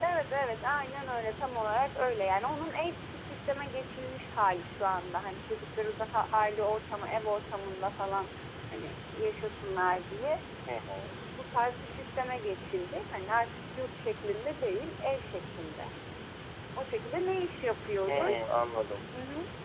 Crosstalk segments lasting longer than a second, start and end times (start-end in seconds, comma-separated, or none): none